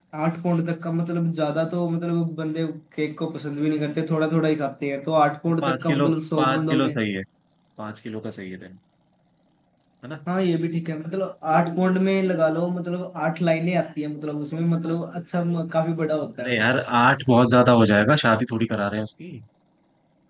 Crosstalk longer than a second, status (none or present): present